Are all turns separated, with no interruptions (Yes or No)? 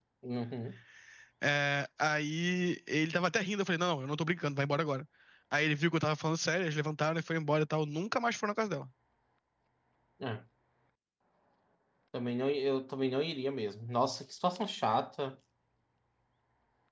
Yes